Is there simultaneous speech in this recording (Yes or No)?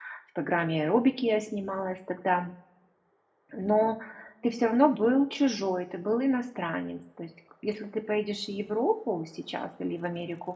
No